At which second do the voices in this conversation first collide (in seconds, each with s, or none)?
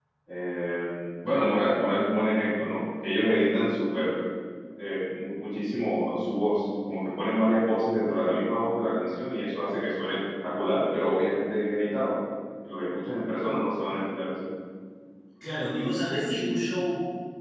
none